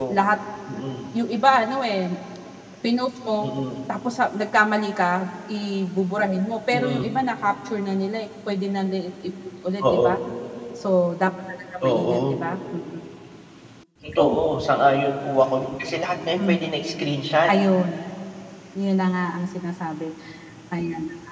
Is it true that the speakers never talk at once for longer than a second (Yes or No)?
Yes